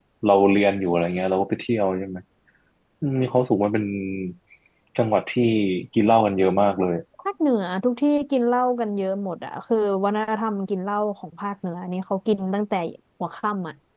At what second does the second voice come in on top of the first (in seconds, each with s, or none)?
none